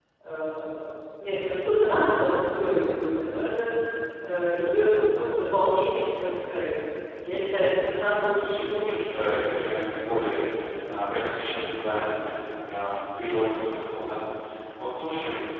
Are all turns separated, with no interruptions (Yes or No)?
No